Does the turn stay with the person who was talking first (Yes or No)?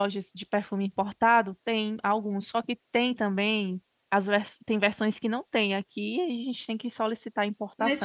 No